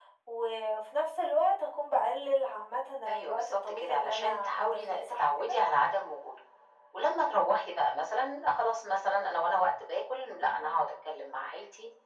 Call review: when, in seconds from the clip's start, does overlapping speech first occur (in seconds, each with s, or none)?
3.1 s